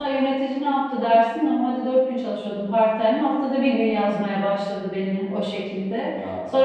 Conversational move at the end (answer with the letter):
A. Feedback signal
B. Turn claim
A